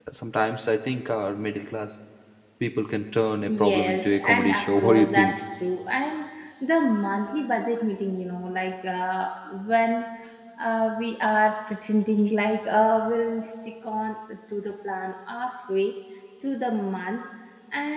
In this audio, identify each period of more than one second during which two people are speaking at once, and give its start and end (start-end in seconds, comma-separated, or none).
3.5-5.4